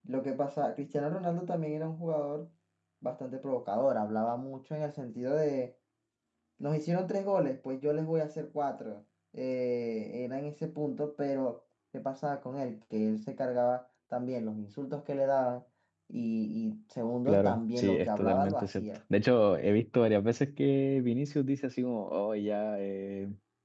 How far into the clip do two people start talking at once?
17 s

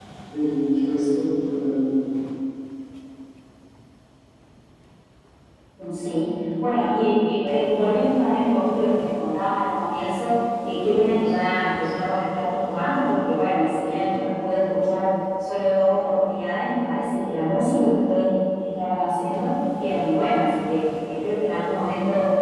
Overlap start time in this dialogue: none

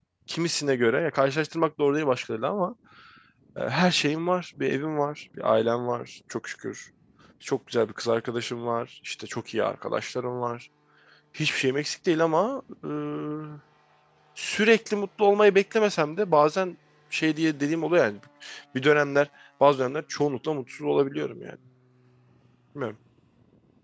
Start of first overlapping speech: none

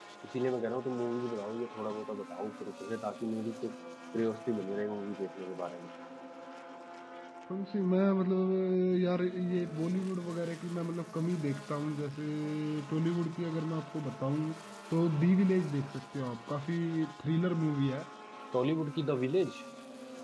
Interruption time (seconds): none

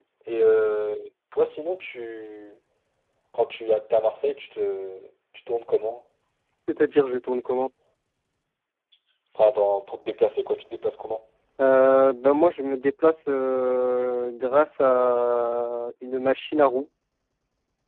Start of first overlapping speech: none

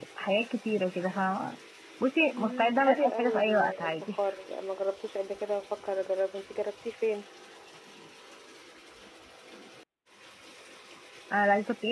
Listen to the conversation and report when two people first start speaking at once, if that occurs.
2 s

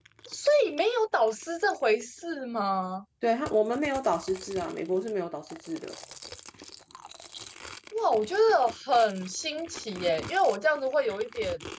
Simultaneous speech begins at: none

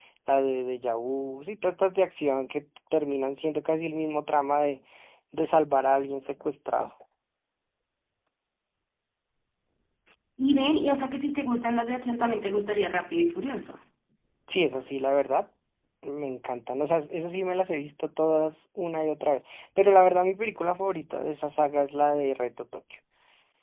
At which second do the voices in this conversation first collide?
none

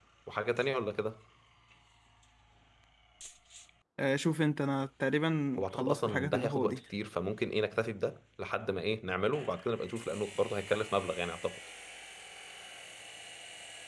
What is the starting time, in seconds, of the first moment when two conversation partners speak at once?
6 s

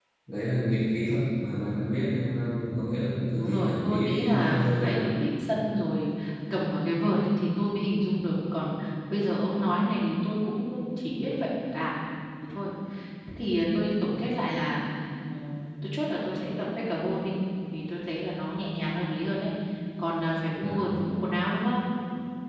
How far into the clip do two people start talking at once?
3 s

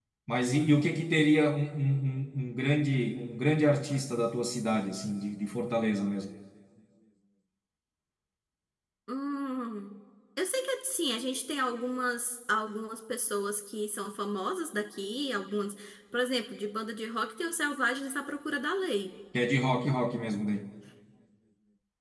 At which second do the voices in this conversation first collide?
none

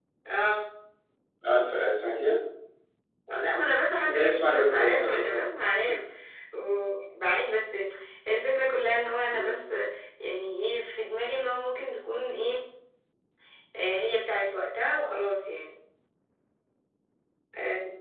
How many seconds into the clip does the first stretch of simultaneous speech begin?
4 s

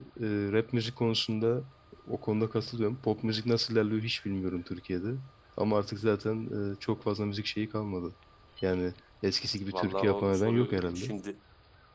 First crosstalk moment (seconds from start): 10 s

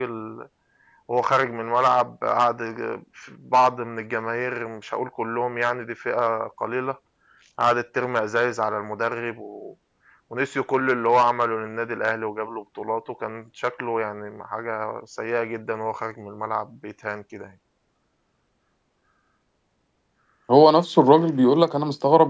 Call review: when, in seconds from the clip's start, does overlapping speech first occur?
none

